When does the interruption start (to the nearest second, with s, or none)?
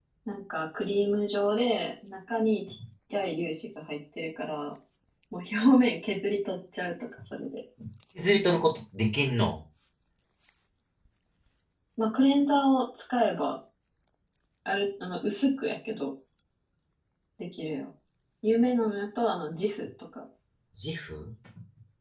none